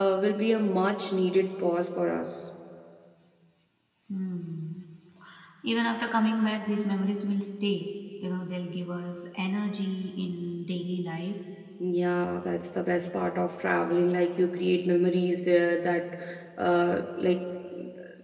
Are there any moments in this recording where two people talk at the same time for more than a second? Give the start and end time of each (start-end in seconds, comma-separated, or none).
none